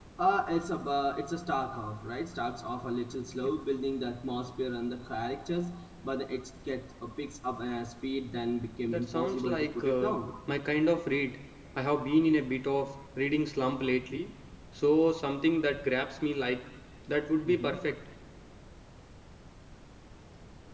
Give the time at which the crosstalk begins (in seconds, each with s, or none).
8.9 s